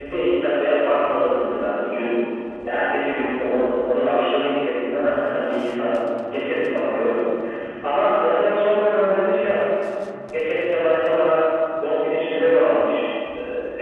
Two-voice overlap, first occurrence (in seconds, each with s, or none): none